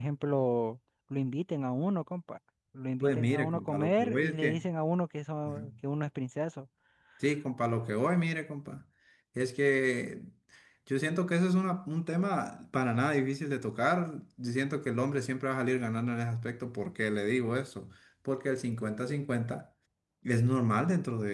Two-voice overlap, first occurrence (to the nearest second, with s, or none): 3 s